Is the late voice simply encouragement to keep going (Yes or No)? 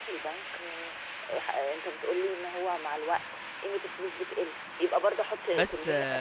No